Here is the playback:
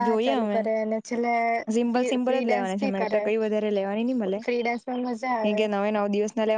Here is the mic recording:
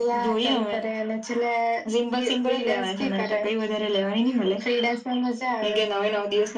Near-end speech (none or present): none